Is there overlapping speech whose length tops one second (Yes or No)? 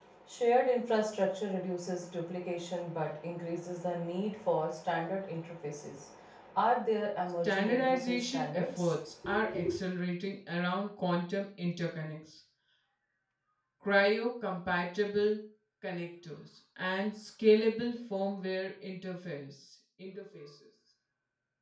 Yes